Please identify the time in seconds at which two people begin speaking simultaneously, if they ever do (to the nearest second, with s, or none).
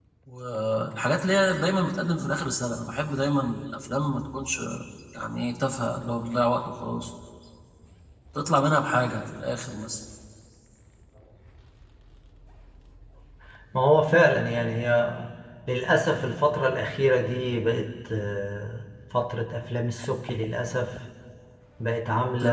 none